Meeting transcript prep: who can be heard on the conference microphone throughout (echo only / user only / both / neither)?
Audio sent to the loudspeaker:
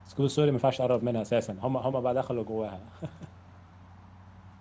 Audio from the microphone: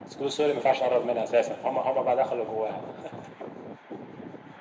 echo only